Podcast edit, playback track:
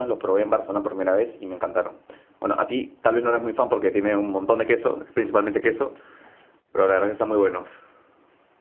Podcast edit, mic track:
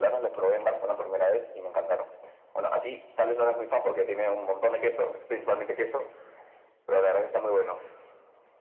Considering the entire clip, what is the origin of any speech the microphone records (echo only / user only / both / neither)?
echo only